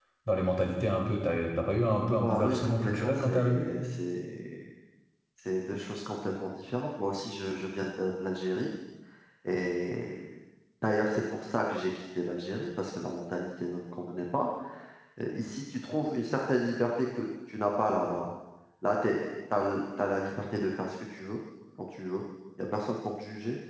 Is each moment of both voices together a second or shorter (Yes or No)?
No